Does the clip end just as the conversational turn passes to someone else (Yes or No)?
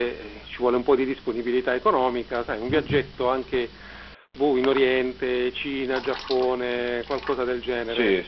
Yes